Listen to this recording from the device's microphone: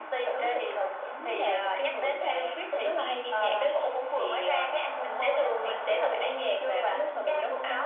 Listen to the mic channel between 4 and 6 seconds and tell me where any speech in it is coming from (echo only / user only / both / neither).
echo only